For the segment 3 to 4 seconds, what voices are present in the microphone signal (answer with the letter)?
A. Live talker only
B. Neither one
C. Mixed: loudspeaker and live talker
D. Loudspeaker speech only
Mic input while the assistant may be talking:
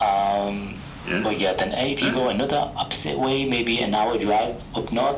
D